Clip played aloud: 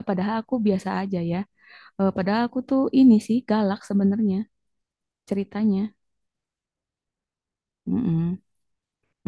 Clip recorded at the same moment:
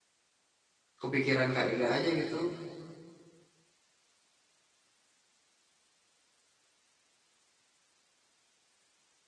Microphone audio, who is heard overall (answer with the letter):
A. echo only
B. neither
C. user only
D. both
C